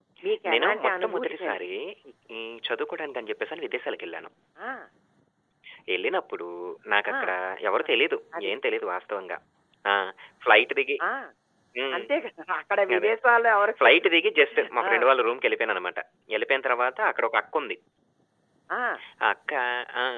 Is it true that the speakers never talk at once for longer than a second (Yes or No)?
No